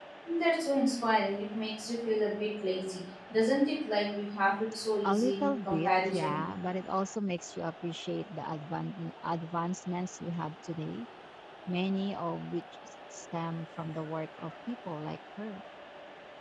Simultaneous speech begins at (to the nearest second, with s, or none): 5 s